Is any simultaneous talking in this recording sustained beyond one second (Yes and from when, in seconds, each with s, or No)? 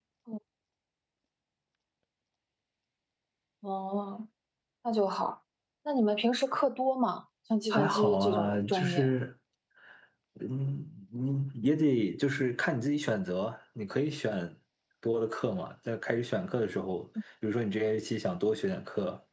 Yes, from 7.7 s